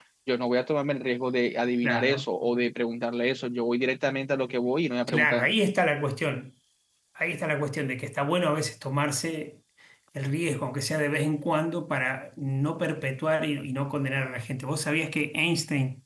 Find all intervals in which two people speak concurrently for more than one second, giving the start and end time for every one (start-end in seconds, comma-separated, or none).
none